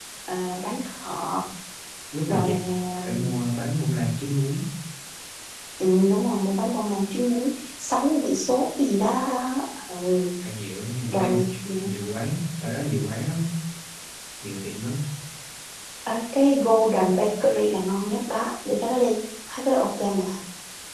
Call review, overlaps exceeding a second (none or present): none